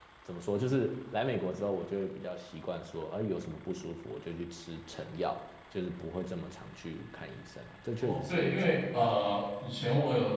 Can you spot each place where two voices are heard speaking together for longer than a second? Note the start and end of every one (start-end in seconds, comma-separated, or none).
8.0-9.3